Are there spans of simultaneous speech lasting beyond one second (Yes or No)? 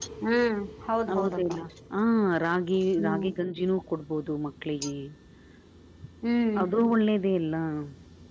No